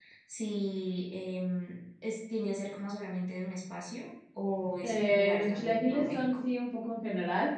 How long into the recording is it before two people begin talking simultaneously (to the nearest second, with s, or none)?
5 s